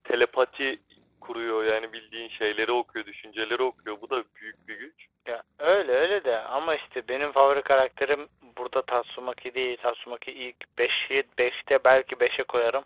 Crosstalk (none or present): none